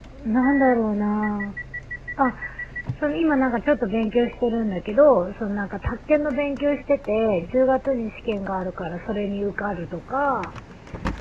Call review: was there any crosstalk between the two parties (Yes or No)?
No